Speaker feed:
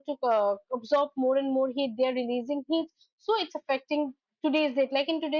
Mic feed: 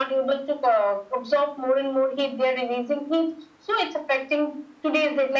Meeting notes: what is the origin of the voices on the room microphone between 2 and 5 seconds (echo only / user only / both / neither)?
echo only